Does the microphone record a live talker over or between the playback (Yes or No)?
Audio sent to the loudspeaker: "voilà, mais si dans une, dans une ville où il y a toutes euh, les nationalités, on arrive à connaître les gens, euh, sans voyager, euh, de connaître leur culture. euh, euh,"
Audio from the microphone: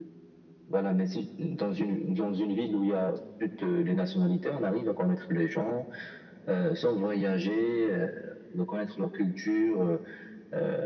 No